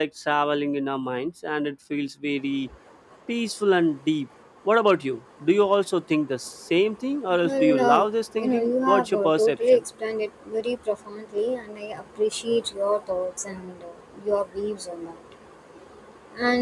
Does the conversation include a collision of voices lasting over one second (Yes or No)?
Yes